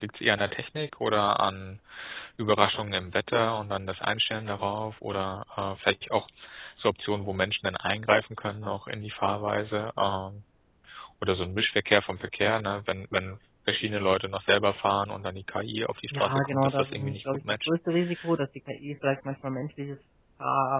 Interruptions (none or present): present